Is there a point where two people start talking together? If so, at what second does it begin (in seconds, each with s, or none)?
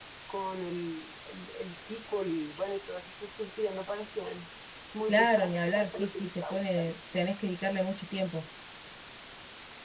5.1 s